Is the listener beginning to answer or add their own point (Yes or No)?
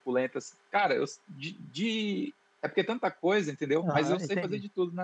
Yes